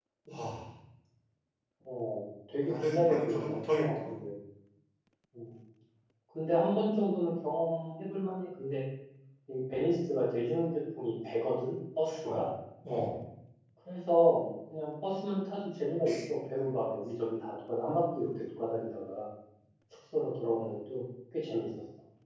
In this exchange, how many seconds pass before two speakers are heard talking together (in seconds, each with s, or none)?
2.6 s